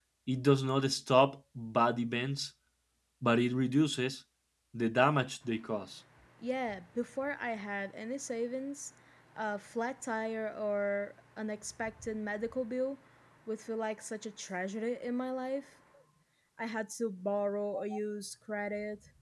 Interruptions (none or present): none